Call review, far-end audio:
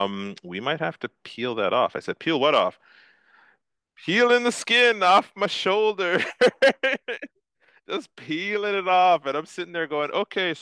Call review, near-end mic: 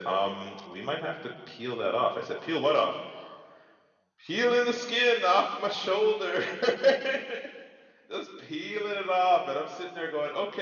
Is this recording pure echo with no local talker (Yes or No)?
Yes